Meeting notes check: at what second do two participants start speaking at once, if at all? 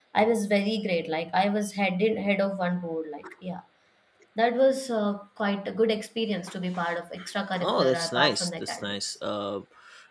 7.6 s

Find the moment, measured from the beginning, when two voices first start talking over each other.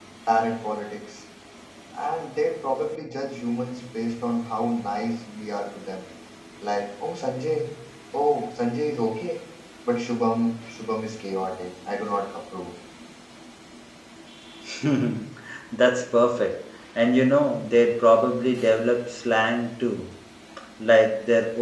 none

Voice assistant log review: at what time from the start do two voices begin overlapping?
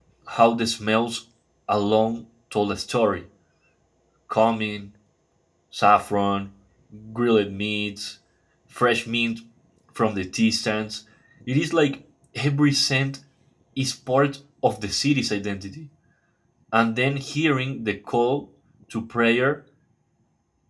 none

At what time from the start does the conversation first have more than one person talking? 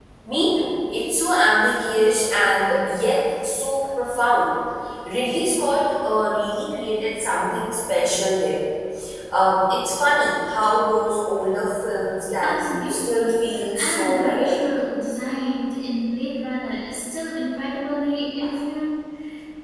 12.4 s

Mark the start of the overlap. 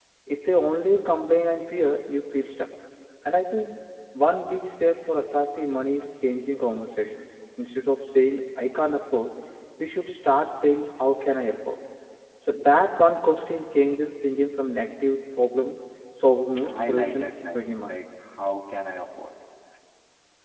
16.6 s

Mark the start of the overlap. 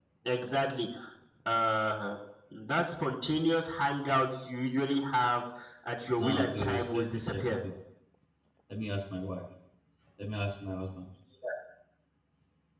6.2 s

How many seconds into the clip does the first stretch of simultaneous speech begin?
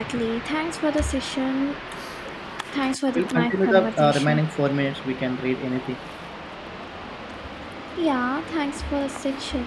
3.2 s

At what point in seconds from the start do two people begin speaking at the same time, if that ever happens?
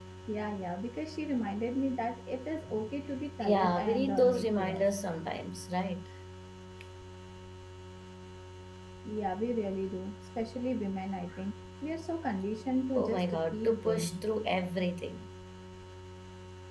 3.4 s

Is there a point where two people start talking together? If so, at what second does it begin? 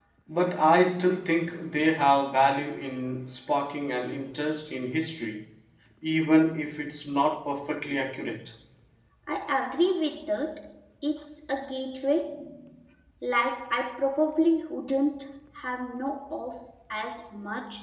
none

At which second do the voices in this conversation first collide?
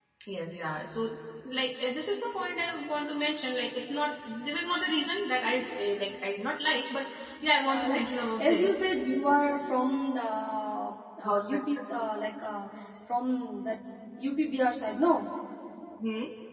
7.6 s

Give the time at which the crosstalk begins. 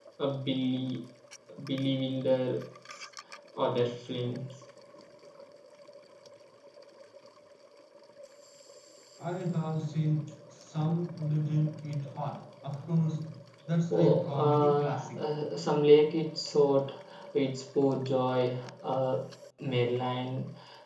13.9 s

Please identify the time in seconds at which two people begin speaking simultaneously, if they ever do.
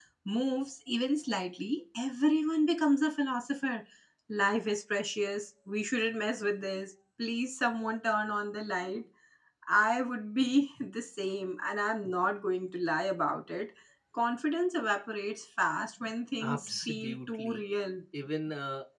16.4 s

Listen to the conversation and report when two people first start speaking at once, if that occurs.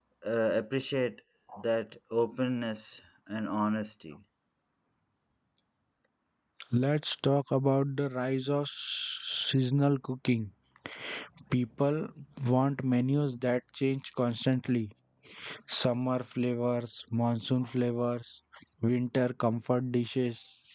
none

